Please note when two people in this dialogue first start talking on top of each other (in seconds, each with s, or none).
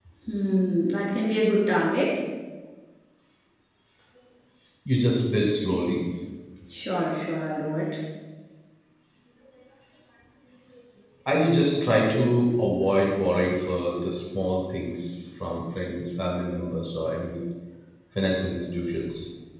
none